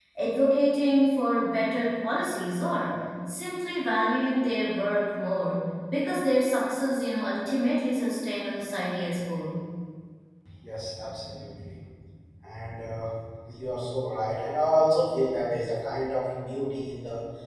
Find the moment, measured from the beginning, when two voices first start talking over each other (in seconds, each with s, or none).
none